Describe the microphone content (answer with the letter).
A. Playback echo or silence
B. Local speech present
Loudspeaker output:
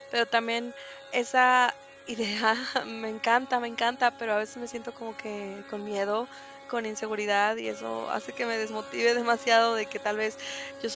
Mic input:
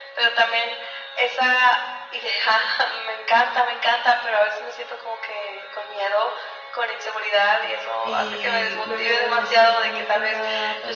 B